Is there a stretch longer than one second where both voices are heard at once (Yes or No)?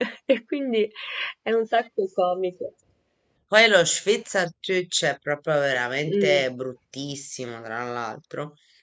No